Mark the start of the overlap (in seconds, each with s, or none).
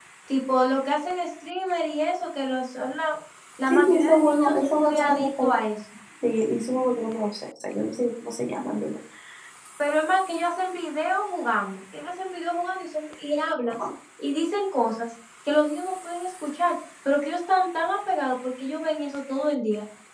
3.7 s